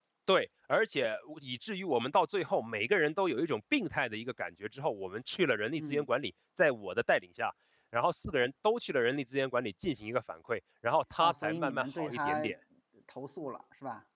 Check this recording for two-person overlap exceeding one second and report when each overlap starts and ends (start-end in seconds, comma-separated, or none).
11.2-12.5